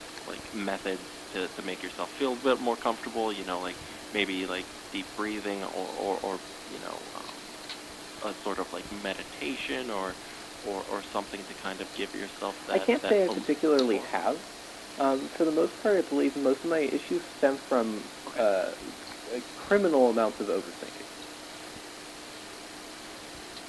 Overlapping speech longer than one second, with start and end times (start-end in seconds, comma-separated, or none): 12.7-14.1